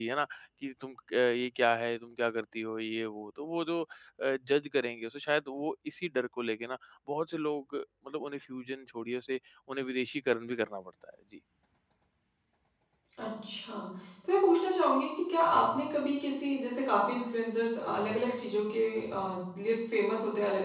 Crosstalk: none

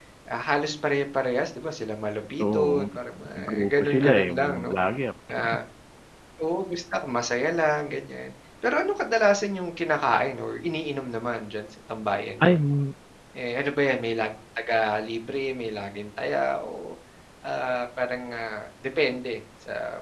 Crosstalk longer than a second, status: present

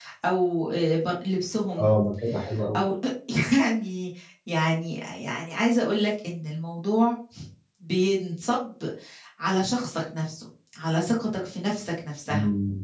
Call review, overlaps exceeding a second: none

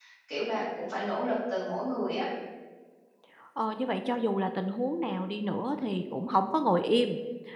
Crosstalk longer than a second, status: none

